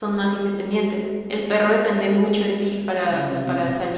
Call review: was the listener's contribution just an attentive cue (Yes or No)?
Yes